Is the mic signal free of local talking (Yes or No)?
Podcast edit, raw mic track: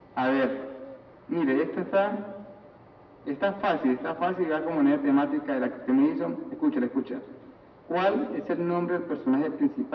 Yes